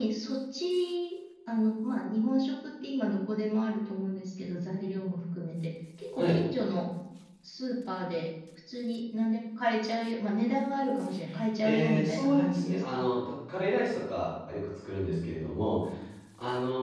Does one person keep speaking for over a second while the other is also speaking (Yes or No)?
Yes